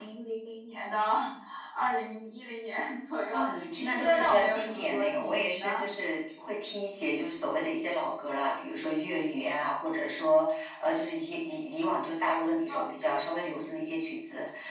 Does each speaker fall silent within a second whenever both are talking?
No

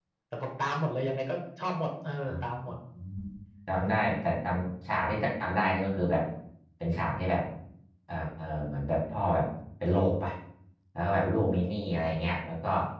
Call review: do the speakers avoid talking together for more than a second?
Yes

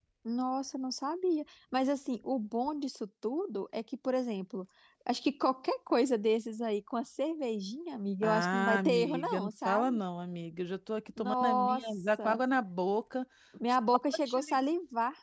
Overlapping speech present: Yes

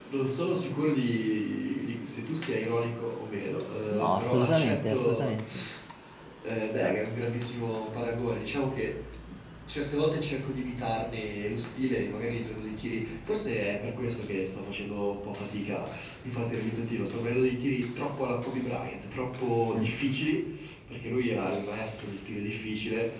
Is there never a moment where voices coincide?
No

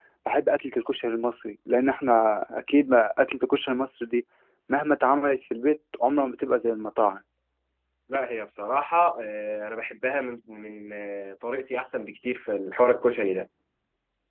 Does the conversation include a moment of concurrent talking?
No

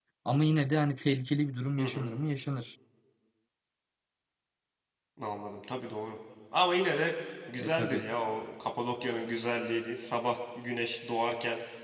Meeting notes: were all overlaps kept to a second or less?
Yes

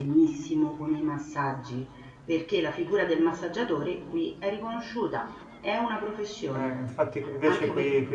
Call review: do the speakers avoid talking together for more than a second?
Yes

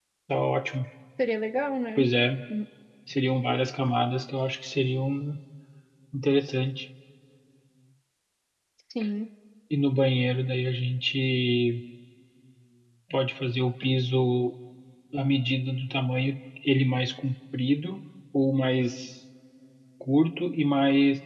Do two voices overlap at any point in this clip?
No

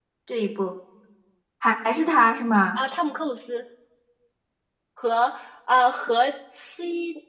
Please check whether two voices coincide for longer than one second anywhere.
No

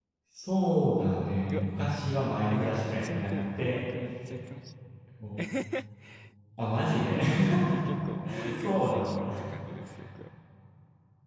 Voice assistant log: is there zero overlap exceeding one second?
No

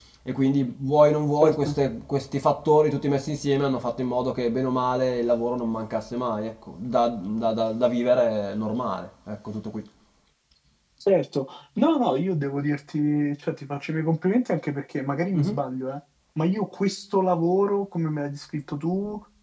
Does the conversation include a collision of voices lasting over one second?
No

